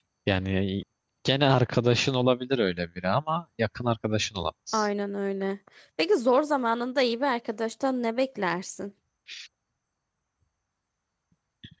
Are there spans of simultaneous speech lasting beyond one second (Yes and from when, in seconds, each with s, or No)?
No